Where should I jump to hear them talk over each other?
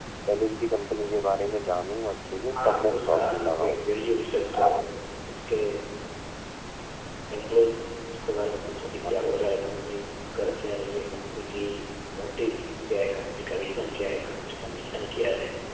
3 s

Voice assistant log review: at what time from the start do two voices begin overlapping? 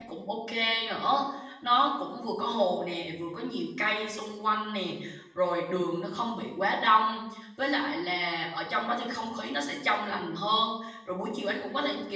none

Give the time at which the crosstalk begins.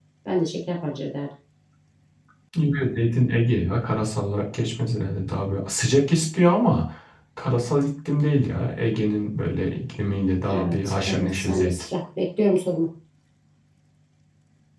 10 s

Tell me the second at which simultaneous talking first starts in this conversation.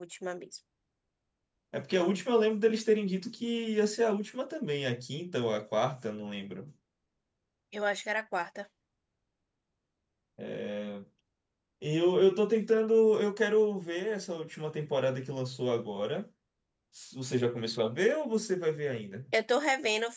none

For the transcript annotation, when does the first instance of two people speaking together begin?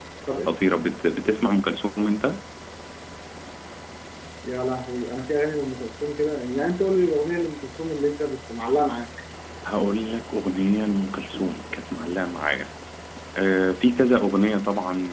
none

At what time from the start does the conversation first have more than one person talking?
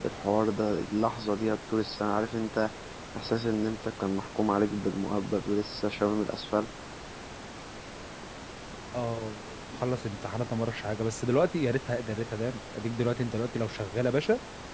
none

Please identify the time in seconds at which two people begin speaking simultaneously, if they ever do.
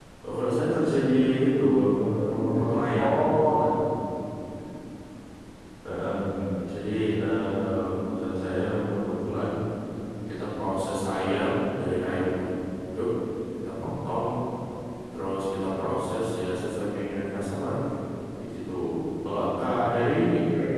2 s

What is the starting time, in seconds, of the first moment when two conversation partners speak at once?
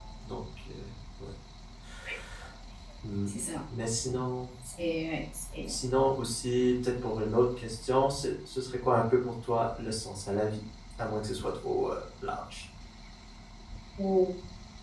none

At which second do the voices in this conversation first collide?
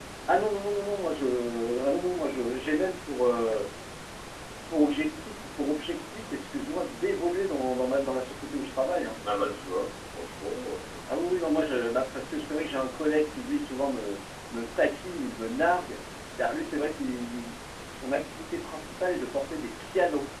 none

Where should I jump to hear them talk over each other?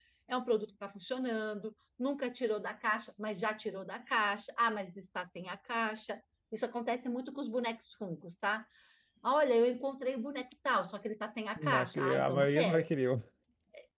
12 s

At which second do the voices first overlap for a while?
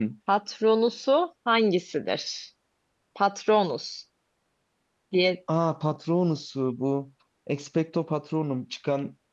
none

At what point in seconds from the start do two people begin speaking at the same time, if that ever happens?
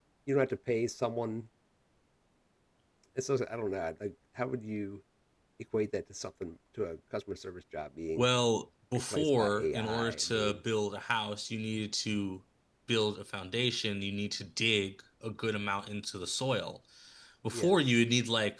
9 s

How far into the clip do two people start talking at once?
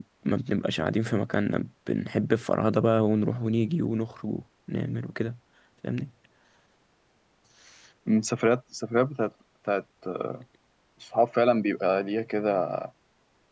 none

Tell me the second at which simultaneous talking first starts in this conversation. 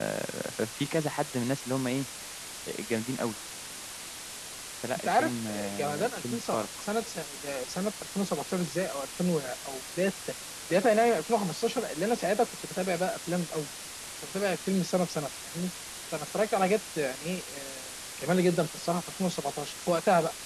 5 s

